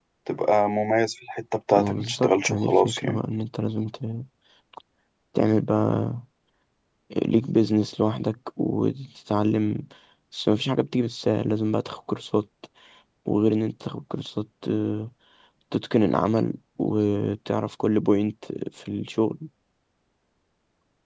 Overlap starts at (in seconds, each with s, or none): 1.8 s